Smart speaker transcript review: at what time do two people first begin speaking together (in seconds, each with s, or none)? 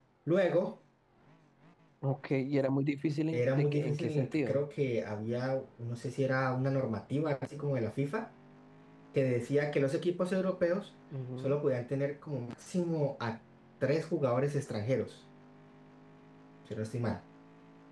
3.3 s